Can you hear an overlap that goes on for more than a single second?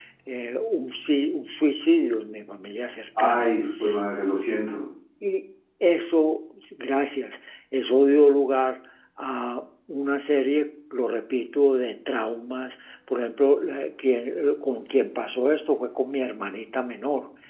No

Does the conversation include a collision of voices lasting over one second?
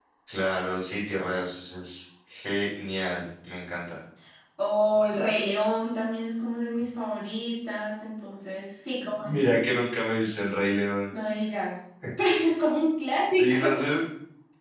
No

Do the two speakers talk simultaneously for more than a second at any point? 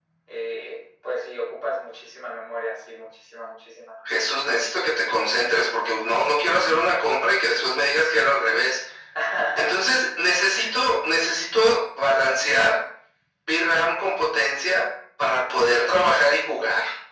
No

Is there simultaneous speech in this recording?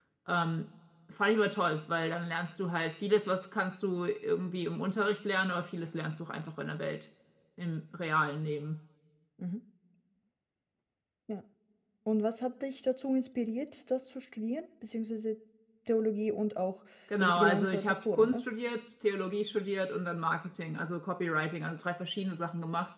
Yes, from 17.2 s

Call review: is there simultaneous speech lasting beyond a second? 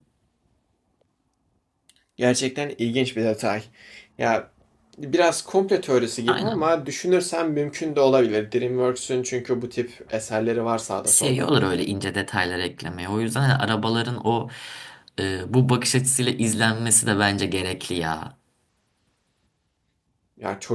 No

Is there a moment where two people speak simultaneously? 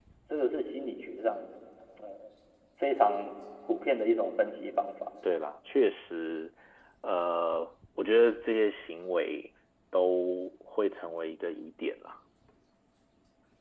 No

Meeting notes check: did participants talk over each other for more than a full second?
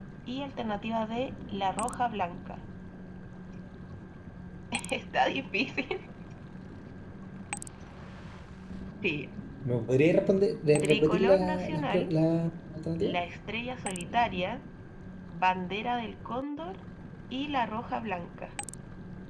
Yes, from 10.8 s

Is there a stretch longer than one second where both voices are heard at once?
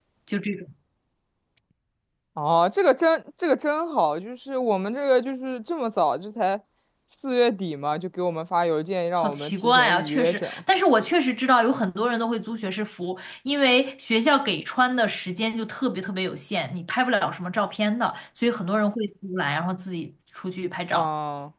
Yes, from 9.2 s

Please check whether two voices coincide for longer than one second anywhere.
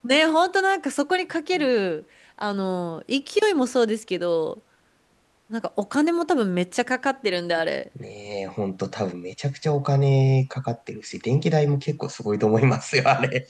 No

